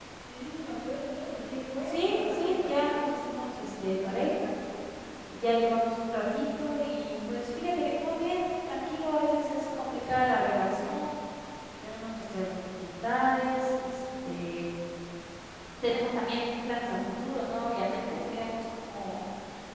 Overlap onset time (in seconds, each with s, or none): 1.8 s